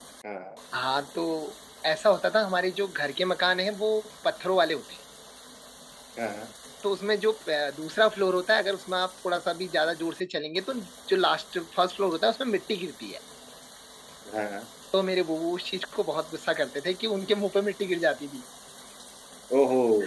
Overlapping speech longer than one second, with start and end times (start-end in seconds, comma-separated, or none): none